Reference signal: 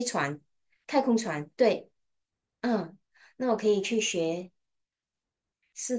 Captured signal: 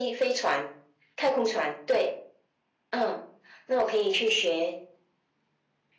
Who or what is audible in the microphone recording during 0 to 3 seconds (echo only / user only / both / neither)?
echo only